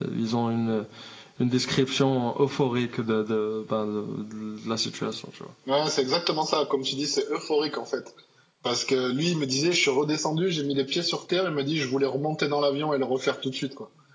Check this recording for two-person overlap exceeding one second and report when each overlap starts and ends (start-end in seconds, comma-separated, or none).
none